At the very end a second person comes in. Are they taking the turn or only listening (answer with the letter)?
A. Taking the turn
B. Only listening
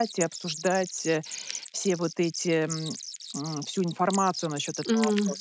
A